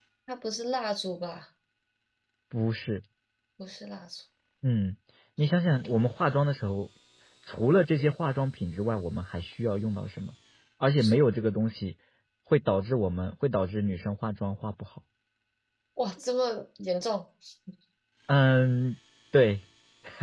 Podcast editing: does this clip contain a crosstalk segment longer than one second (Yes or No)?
No